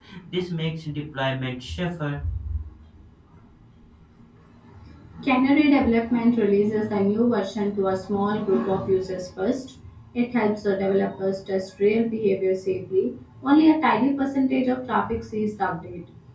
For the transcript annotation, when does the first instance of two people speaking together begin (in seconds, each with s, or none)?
none